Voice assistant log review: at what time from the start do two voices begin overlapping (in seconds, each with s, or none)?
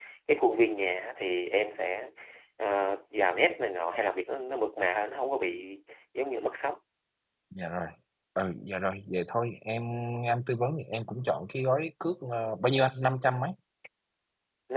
none